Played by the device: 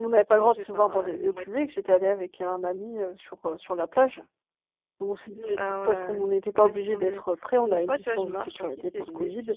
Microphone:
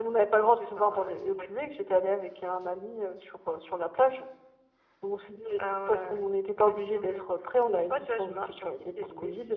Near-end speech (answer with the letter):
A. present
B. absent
B